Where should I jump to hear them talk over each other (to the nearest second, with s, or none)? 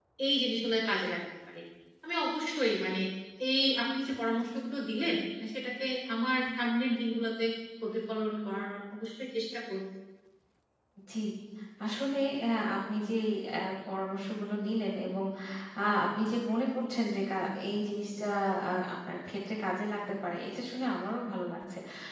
none